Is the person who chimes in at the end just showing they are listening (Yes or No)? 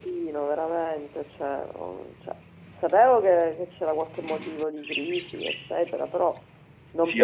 No